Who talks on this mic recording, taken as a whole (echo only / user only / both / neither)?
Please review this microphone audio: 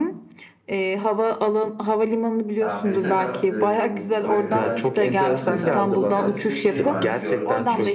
both